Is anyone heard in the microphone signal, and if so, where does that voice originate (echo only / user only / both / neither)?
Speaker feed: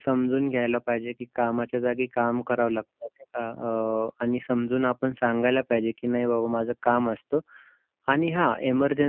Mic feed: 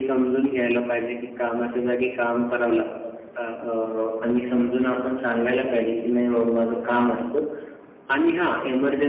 echo only